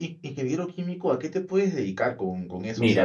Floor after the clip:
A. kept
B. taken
B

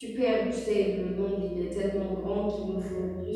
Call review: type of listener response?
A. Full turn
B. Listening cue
B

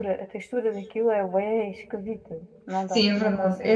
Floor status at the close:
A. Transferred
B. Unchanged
A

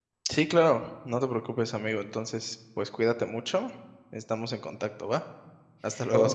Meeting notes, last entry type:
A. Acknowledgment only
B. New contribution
B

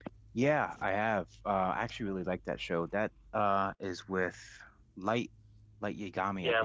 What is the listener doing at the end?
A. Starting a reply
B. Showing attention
A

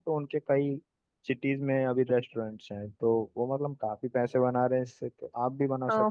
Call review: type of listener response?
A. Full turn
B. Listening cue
A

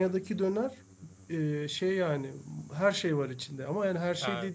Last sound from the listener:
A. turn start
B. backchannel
B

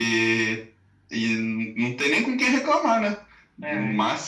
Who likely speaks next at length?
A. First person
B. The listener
A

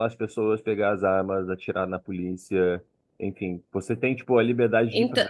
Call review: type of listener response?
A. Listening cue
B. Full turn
A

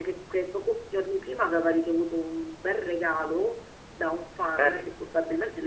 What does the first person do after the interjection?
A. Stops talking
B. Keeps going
B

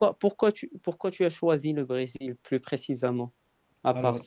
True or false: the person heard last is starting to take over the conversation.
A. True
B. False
A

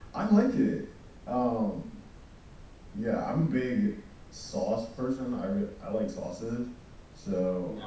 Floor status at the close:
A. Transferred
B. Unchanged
A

